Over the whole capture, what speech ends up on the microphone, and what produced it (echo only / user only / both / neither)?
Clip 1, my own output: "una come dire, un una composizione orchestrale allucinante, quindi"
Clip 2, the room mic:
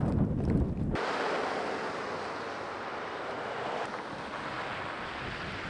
neither